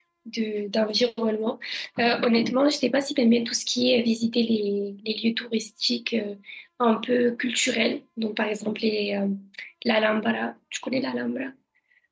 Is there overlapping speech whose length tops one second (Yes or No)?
No